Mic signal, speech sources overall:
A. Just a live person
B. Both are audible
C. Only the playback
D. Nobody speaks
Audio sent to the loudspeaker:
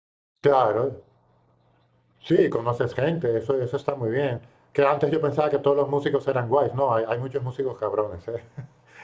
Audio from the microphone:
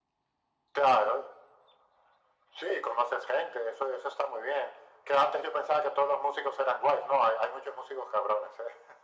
C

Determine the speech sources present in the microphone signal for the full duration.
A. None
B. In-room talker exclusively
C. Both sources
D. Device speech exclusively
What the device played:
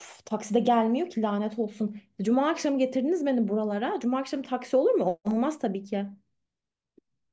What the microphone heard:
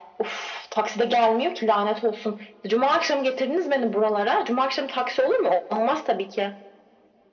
D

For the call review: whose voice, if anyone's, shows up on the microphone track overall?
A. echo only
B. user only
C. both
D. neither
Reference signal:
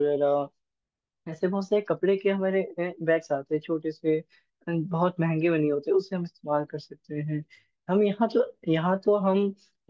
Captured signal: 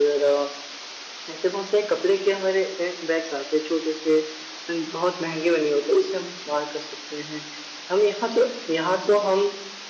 A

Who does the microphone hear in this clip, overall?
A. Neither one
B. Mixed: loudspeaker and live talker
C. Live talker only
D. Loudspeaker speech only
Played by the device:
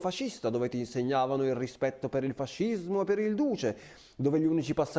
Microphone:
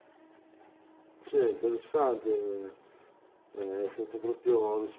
C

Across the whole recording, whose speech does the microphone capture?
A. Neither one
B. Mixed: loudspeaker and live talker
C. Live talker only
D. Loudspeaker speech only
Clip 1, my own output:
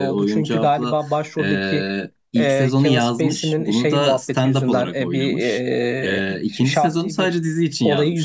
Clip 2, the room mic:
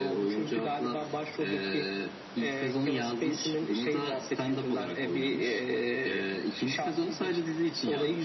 D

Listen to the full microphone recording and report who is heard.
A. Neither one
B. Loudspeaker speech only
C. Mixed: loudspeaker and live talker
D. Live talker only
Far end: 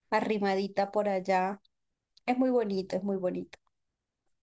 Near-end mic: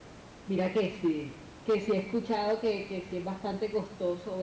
D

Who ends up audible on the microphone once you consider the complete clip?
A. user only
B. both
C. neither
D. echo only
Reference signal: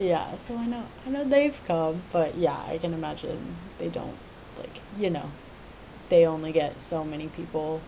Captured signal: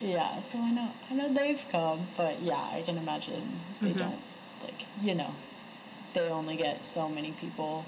B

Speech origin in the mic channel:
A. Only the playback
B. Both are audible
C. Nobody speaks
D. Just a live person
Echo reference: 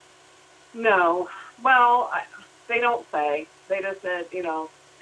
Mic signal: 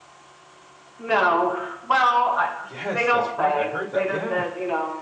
B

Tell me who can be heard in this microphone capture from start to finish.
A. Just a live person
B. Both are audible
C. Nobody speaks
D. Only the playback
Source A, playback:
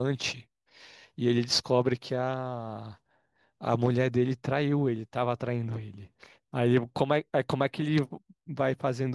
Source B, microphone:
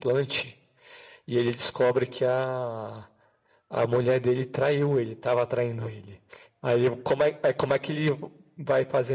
D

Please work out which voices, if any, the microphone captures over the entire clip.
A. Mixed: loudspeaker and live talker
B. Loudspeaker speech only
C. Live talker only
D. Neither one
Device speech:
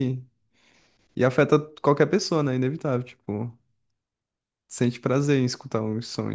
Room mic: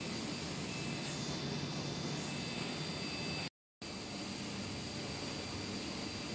D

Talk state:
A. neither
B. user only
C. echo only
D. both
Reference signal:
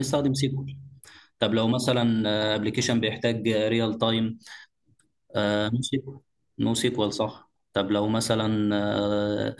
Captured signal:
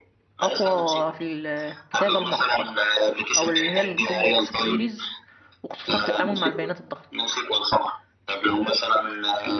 D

